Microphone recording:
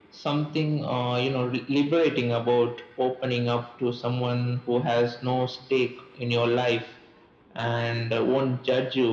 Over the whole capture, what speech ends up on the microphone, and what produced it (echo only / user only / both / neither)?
echo only